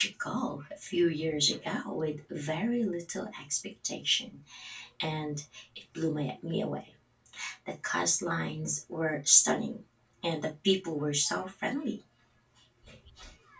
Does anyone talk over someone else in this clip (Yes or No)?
No